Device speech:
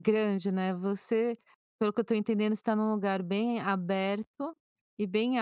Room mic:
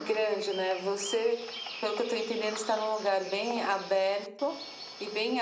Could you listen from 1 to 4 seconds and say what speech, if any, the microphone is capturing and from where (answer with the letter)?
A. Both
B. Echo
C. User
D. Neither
B